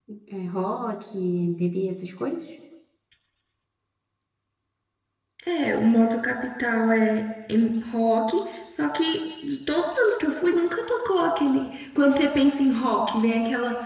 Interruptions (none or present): none